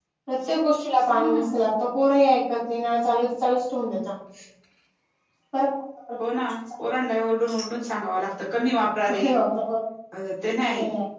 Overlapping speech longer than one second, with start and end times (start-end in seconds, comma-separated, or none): none